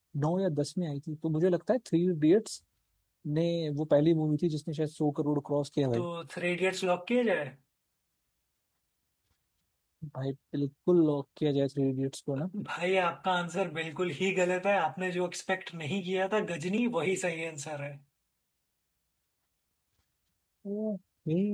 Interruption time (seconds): none

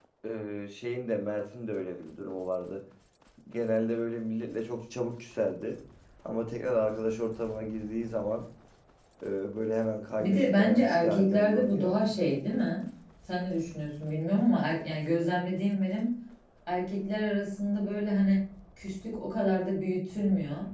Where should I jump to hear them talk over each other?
10.2 s

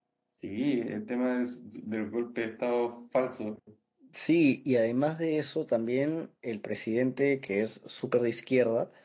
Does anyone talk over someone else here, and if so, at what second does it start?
none

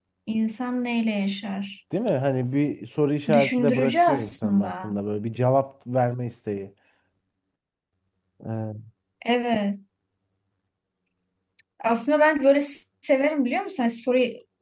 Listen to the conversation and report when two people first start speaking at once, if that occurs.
3.3 s

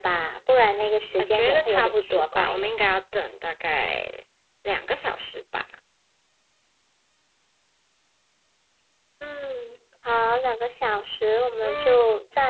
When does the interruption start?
1.2 s

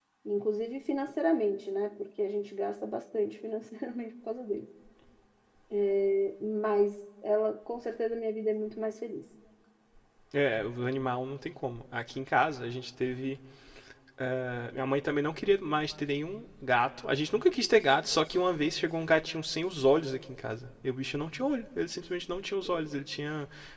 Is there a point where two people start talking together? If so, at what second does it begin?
none

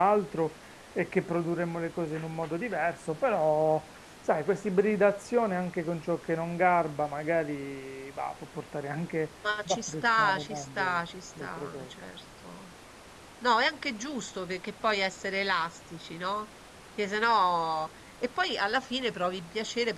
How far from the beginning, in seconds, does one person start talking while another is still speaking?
9.4 s

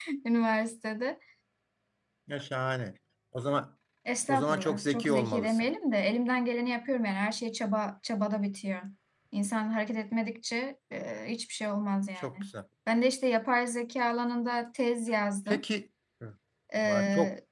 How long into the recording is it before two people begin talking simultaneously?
4.3 s

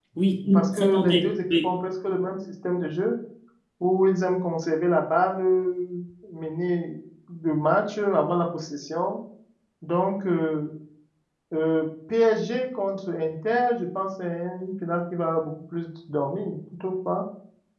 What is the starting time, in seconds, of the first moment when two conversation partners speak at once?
0.5 s

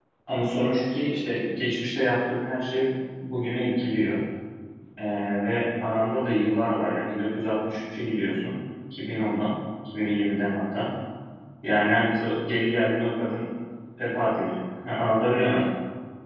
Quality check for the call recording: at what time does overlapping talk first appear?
none

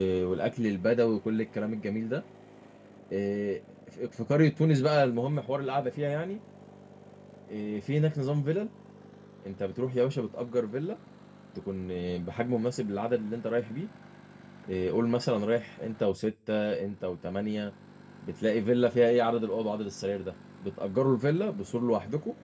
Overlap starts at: none

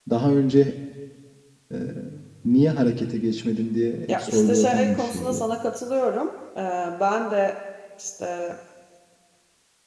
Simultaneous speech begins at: 4.1 s

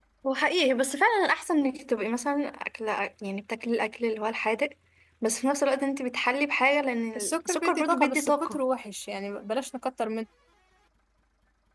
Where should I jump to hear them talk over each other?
7.2 s

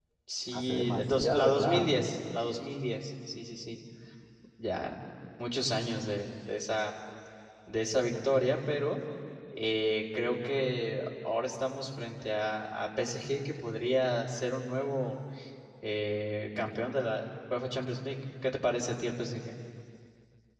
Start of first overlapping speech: 0.5 s

